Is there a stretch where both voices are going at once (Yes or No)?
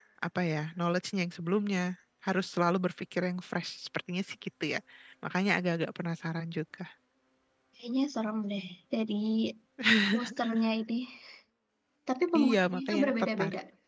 Yes